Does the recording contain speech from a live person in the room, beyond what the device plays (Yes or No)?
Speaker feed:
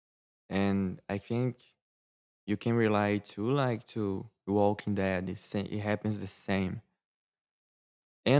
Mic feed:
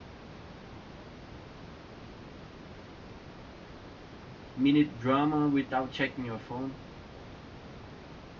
Yes